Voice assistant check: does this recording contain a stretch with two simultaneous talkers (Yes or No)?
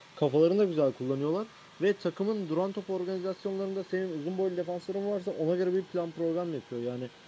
No